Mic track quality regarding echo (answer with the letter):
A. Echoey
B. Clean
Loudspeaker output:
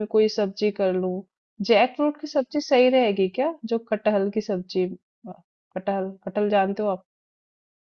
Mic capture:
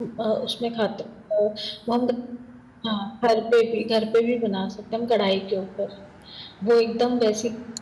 B